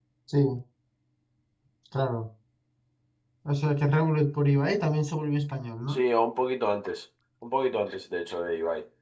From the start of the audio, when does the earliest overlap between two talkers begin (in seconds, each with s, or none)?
none